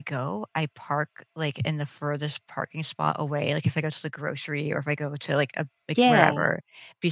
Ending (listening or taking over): listening